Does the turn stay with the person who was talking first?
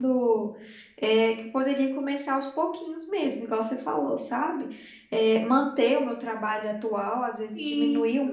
Yes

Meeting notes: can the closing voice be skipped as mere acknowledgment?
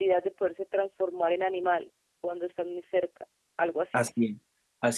No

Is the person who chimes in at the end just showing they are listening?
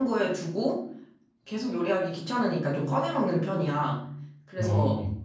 Yes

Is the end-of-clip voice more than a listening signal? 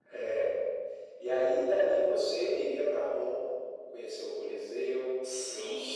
Yes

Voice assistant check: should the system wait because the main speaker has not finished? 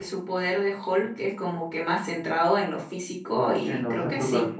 No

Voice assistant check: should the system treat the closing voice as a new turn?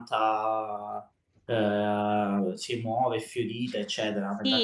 Yes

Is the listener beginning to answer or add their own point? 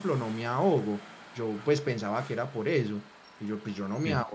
No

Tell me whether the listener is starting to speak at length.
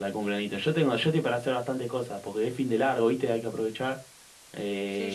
Yes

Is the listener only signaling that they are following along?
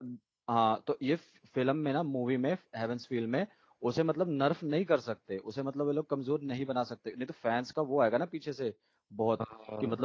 Yes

